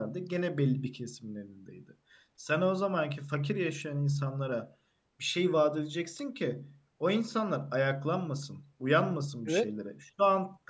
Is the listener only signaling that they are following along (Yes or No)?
Yes